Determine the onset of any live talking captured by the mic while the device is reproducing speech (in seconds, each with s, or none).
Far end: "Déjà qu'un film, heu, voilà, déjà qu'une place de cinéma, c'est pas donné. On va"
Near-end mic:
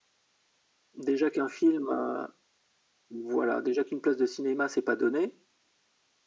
none